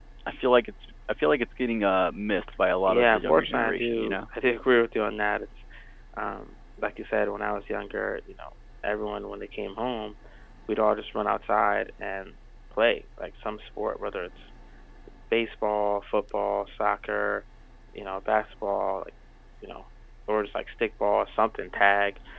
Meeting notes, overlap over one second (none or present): present